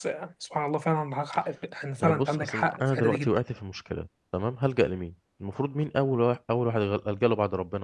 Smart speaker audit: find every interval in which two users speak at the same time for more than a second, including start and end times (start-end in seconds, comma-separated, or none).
2.0-3.4